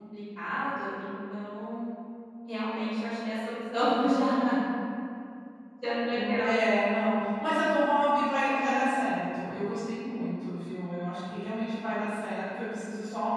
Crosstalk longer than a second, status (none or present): none